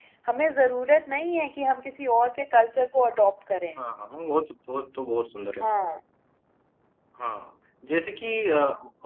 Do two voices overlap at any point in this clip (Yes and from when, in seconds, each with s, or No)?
No